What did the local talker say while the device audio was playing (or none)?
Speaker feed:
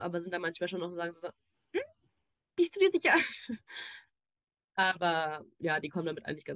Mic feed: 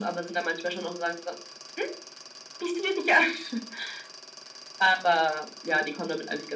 none